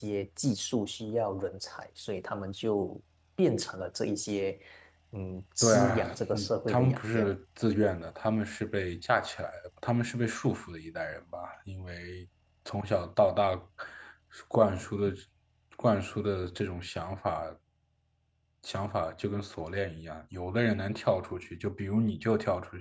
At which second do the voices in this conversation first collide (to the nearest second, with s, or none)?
6 s